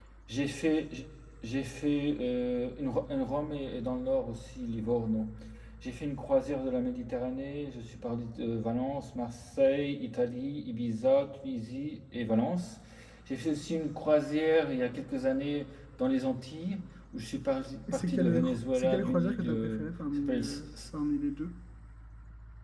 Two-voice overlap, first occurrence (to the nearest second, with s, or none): 18 s